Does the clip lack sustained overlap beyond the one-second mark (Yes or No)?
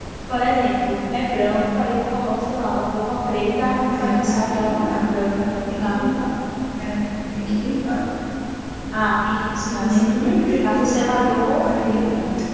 No